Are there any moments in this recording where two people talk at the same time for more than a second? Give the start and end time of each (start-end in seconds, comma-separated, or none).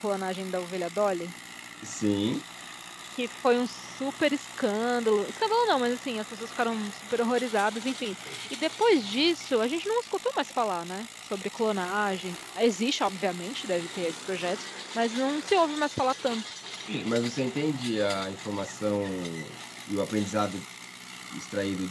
none